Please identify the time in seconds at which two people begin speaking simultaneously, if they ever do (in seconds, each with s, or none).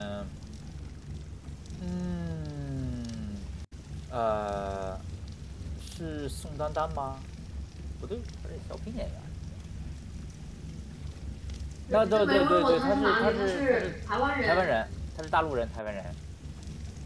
11.9 s